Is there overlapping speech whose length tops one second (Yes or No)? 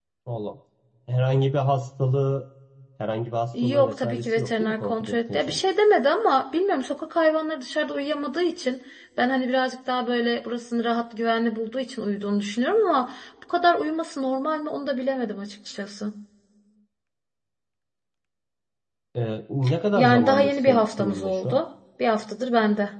Yes